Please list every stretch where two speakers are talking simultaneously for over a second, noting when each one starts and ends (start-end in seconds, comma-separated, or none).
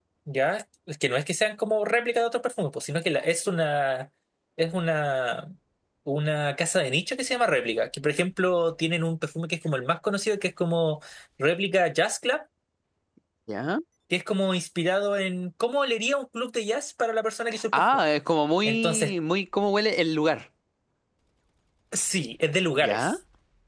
none